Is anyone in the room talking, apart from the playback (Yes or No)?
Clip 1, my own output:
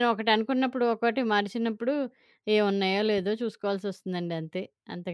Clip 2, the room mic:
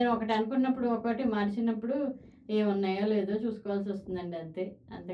No